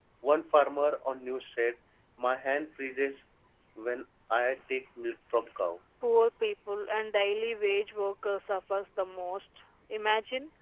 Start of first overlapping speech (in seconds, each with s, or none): none